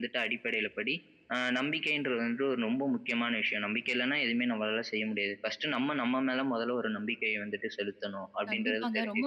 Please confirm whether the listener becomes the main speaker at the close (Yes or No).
Yes